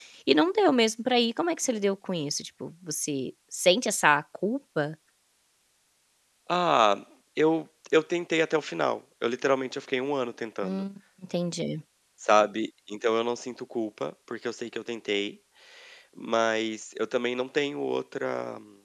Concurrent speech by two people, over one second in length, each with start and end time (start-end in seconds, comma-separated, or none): none